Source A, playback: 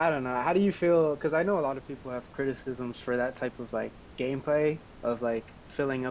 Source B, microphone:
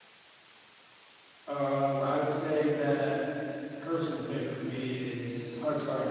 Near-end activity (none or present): present